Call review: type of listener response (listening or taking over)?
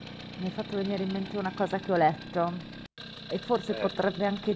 listening